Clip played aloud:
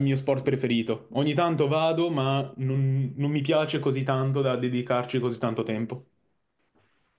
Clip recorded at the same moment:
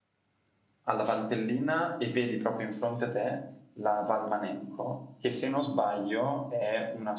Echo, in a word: none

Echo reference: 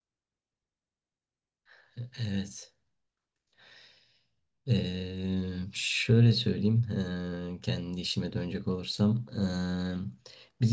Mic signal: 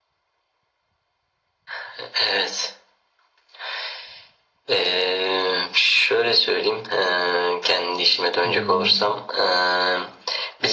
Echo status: present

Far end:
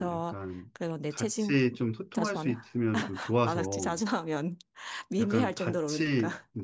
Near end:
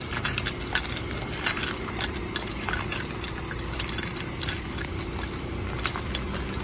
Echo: none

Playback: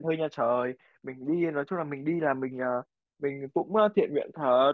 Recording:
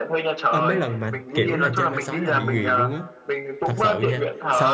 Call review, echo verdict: present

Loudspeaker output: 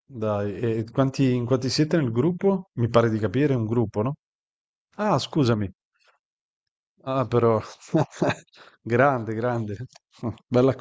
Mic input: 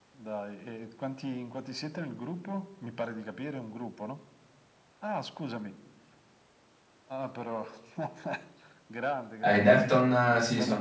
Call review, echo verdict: present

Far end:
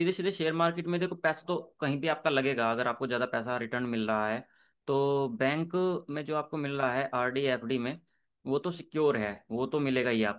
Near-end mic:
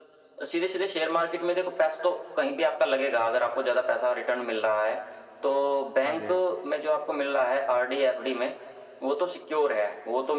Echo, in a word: present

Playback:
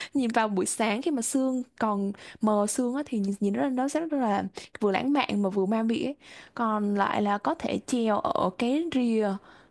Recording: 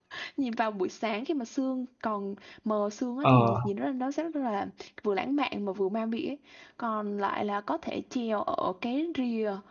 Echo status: present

